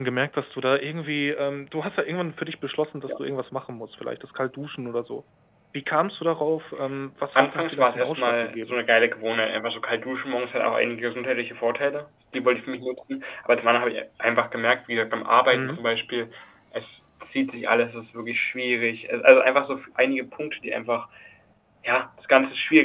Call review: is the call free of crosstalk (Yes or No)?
No